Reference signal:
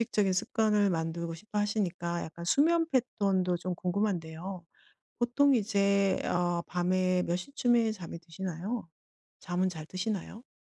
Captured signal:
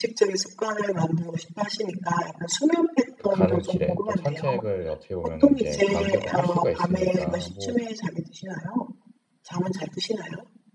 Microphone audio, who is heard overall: both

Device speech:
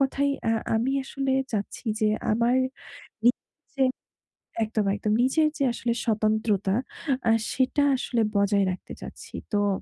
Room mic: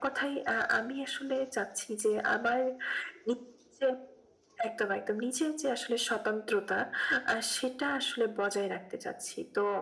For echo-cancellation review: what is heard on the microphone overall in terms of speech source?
echo only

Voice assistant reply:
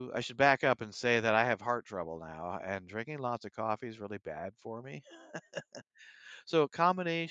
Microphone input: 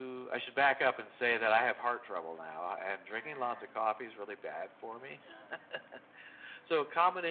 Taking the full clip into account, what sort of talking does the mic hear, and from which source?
echo only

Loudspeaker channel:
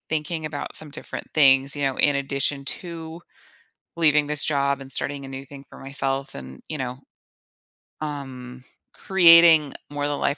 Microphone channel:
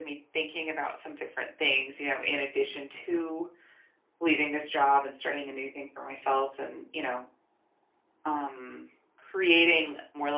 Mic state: echo only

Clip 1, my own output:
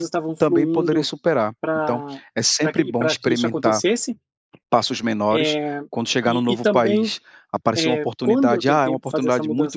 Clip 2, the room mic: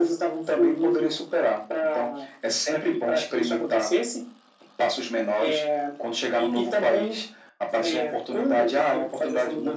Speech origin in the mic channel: echo only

